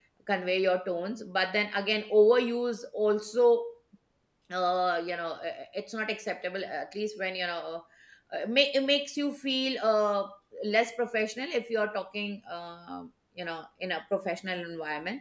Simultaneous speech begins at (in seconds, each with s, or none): none